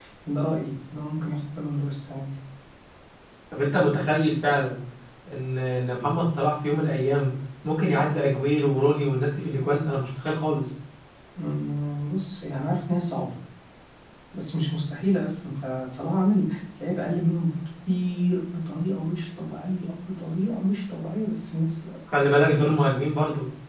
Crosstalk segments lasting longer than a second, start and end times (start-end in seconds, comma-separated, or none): none